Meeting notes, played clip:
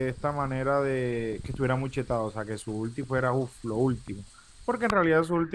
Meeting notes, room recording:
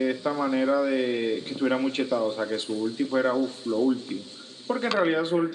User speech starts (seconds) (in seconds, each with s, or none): none